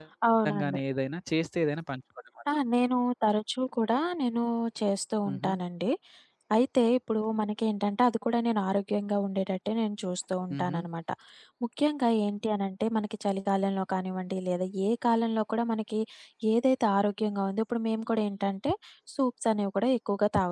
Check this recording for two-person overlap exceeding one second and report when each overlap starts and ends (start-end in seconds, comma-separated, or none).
none